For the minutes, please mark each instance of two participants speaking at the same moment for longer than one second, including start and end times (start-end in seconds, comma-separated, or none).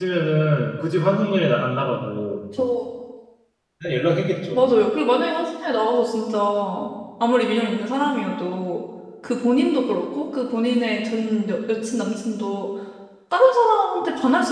none